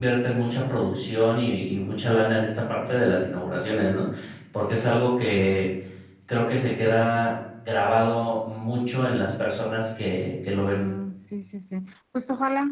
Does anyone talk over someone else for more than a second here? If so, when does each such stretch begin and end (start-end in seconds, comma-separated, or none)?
none